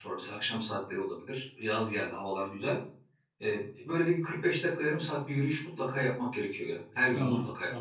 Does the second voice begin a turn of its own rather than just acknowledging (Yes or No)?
Yes